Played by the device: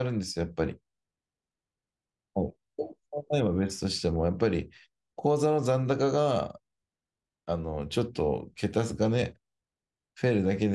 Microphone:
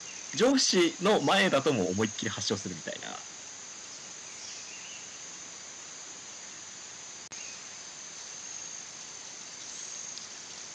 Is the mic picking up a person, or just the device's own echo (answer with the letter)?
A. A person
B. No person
A